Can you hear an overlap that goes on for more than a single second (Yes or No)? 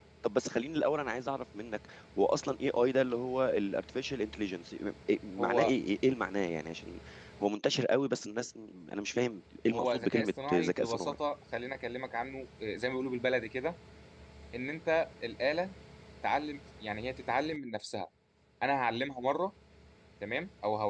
Yes